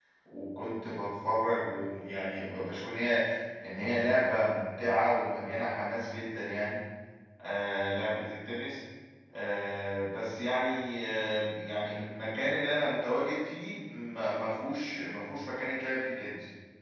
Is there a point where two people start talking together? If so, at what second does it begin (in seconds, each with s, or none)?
none